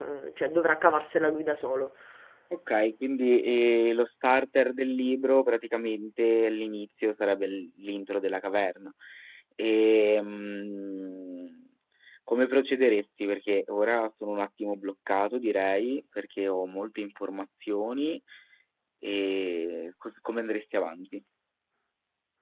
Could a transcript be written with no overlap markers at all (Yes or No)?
Yes